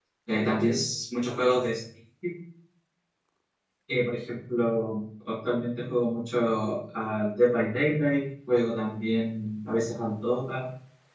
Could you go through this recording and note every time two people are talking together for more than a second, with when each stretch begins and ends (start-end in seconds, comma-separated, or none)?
none